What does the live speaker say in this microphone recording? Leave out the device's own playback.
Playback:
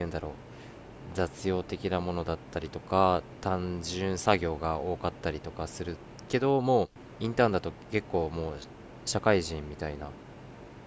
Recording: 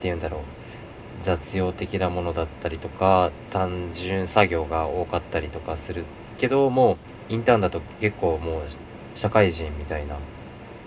none

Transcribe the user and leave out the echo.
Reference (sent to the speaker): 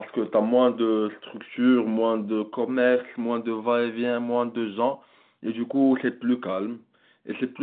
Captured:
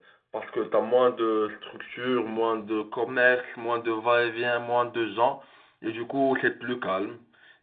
none

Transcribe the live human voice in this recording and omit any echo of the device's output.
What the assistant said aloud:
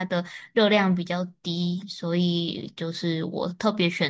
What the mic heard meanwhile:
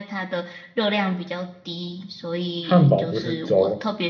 汉堡不是粥，

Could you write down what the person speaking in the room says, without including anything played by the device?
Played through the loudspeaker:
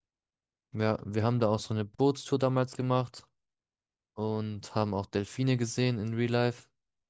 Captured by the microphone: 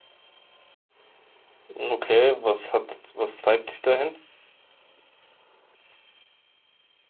Okay, was hat, was treibt dich dahin?

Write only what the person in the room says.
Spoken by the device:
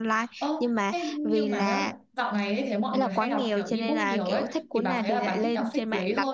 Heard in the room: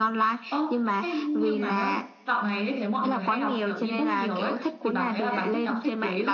none

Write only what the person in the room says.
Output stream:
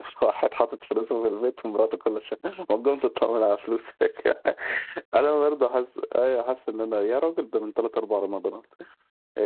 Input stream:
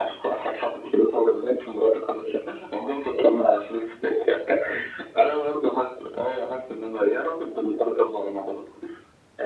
none

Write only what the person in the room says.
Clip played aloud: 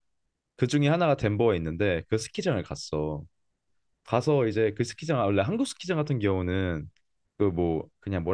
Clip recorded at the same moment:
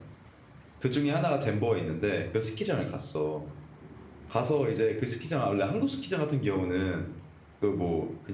none

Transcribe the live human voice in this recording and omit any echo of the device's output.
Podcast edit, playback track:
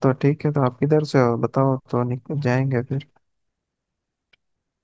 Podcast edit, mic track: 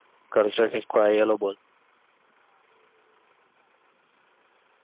घर से किसको आई हेलो बोल

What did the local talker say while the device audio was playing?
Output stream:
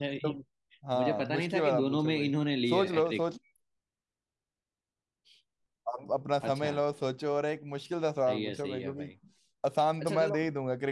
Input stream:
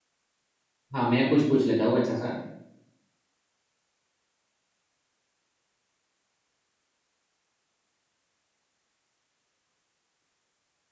हाँ मैं कुछ पूछ लेता हूँ अच्छा सा

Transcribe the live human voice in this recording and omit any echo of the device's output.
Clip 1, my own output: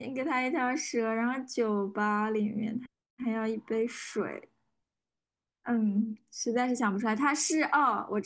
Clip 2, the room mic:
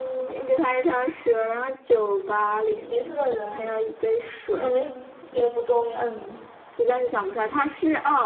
迷是个人，小明性别不重要，

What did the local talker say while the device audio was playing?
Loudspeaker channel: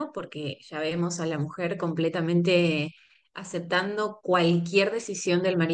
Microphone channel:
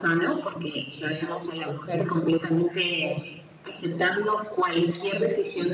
none

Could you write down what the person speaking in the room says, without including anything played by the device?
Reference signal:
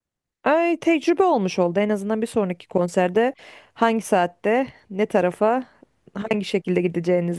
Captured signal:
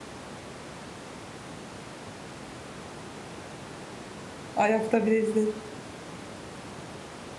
Ayakta bile izlerim.

